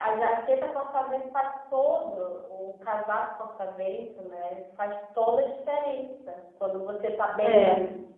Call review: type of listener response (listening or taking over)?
listening